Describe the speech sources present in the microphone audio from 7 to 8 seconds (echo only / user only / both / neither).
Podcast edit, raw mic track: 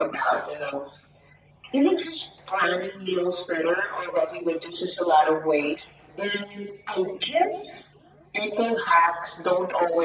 echo only